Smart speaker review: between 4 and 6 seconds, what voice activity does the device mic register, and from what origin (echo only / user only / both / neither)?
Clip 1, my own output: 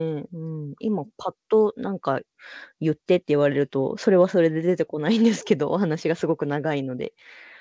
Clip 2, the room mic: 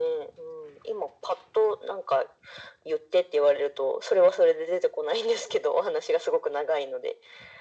echo only